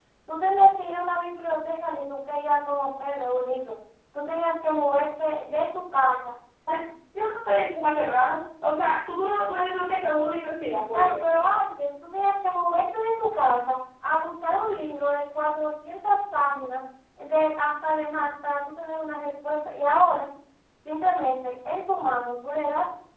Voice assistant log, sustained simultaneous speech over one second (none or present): none